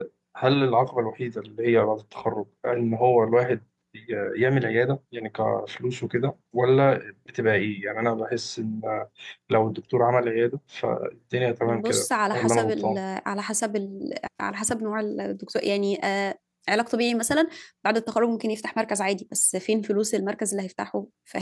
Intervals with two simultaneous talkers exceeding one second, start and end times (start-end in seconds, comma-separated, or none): 11.7-13.0